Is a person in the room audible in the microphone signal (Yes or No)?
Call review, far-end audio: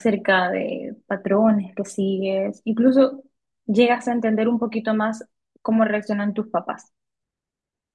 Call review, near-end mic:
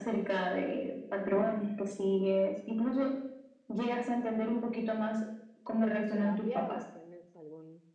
Yes